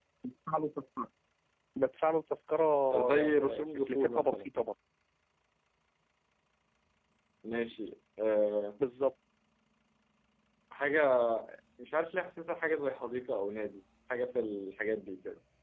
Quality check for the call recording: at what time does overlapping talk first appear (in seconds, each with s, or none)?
2.9 s